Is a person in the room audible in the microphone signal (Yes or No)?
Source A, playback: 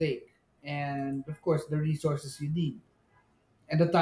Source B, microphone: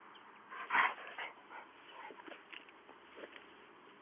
No